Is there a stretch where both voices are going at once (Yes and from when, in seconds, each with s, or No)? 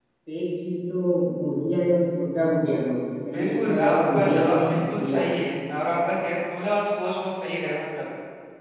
Yes, from 3.3 s